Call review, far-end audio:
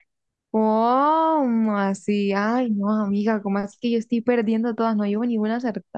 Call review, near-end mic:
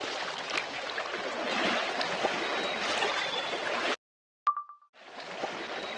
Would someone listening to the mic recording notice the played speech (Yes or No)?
No